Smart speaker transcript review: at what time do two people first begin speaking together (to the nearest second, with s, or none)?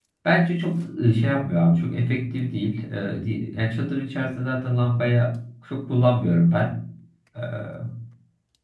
none